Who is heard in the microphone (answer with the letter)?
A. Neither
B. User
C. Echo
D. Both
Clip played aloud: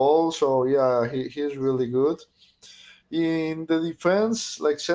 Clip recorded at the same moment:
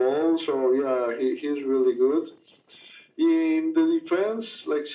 C